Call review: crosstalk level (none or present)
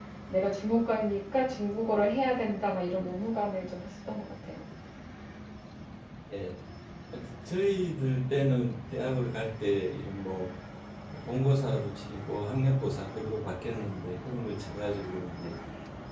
none